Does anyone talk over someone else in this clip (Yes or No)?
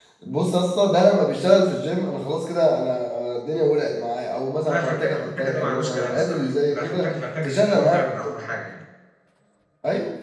Yes